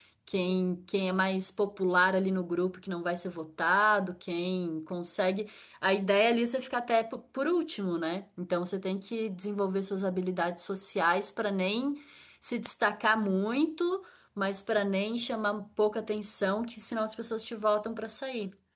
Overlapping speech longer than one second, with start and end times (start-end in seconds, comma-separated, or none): none